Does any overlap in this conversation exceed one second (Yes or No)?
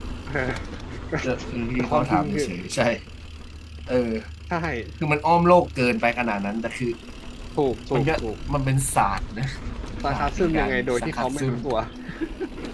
Yes